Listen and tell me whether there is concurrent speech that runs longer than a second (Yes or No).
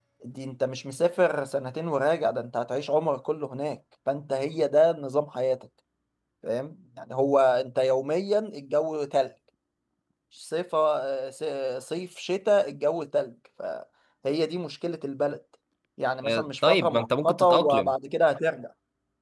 Yes